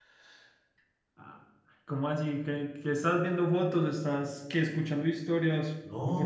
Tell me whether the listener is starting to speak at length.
Yes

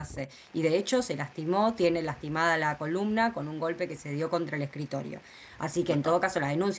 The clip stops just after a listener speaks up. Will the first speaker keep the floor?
Yes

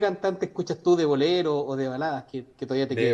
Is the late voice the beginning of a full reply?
Yes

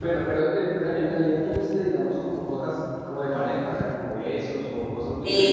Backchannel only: No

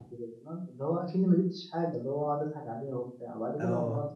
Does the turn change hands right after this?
No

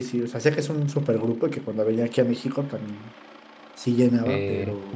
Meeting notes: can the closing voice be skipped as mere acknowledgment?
No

